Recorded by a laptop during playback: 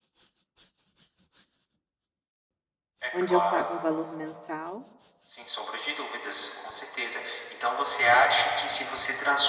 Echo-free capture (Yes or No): No